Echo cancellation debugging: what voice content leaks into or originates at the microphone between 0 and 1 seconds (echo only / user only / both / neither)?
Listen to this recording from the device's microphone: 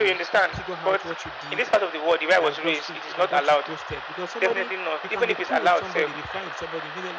both